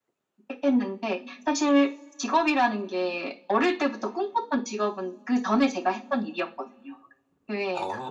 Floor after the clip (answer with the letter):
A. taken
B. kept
A